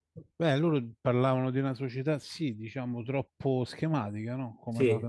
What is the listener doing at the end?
listening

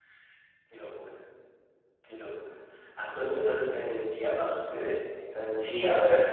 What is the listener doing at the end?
taking over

